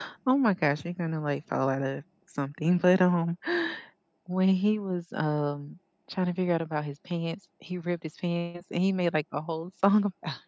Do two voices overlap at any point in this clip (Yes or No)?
No